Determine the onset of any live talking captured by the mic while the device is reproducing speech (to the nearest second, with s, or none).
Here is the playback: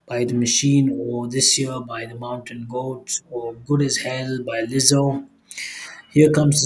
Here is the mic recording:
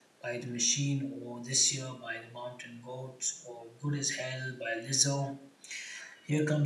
none